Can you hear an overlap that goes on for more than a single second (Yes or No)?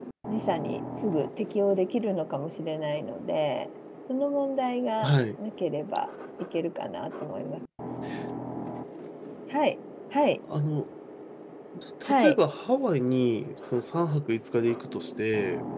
No